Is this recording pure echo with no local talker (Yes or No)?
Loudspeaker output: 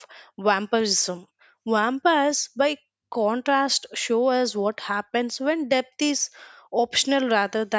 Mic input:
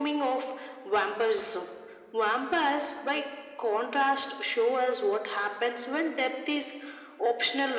Yes